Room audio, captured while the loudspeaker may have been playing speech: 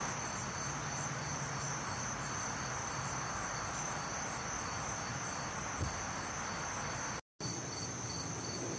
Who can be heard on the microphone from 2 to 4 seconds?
neither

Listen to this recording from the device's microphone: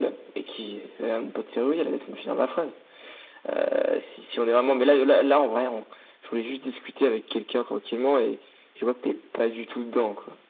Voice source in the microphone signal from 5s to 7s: echo only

